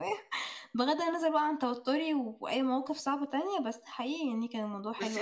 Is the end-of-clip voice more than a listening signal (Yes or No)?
Yes